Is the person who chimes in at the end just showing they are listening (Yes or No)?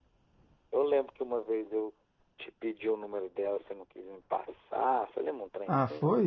No